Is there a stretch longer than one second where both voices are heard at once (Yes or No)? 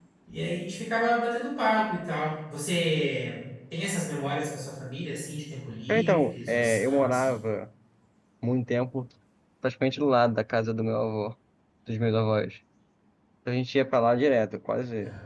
Yes